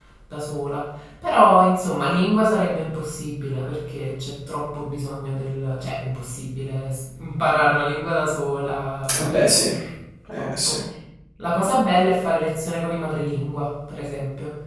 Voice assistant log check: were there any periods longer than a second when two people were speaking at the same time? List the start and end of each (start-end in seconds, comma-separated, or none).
none